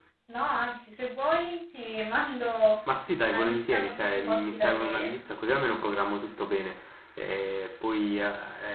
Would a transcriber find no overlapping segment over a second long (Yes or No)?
No